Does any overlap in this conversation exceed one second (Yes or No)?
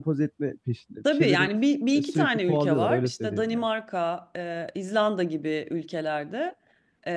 Yes